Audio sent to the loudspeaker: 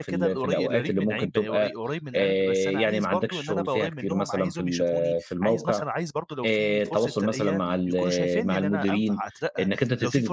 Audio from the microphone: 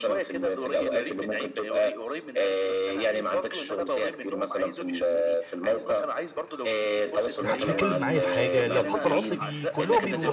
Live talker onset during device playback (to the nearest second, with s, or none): 7 s